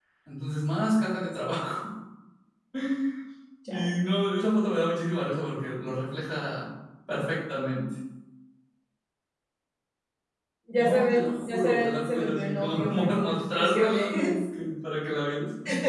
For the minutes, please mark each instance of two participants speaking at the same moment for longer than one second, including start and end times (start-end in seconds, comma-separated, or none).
10.8-14.3